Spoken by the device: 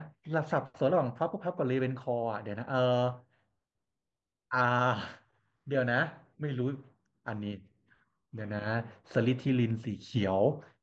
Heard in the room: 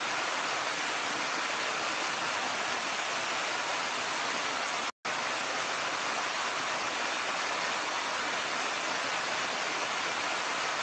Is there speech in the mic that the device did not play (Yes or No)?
No